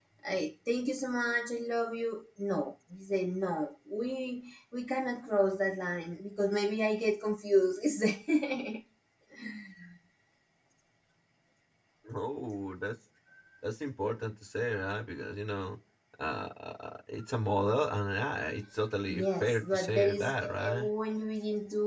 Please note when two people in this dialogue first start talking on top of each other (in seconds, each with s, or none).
19.1 s